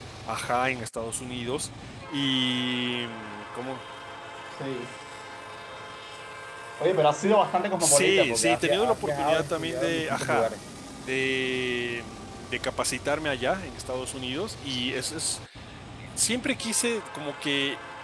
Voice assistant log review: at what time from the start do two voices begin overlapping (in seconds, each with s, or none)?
7.8 s